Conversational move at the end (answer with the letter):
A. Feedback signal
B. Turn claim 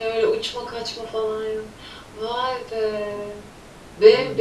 A